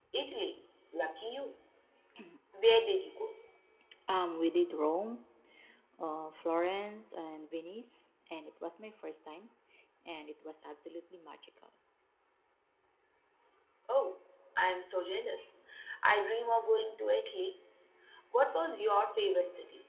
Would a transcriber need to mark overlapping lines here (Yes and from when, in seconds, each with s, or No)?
No